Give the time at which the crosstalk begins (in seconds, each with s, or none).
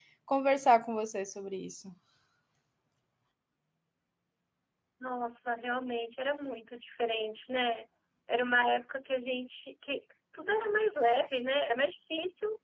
none